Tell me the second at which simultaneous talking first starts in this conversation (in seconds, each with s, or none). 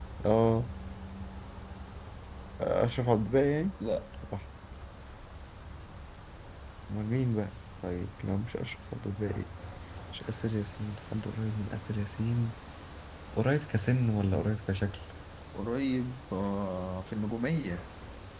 none